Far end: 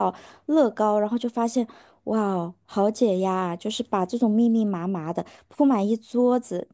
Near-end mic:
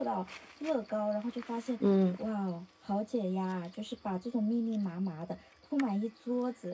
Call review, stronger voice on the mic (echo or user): user